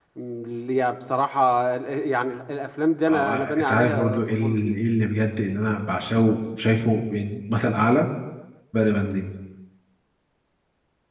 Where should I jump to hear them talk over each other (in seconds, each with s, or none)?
3.1 s